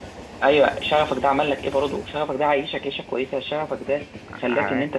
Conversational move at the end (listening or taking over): listening